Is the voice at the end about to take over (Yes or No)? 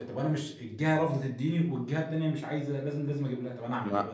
Yes